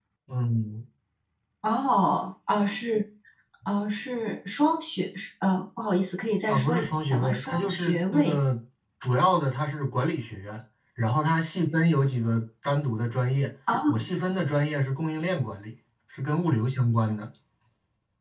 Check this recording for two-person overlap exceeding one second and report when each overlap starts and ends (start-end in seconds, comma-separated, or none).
6.5-8.4